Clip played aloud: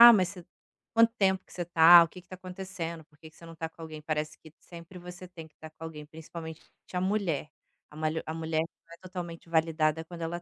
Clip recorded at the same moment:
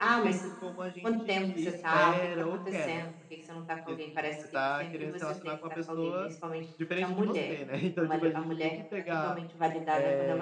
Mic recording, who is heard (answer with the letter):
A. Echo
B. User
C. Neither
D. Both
D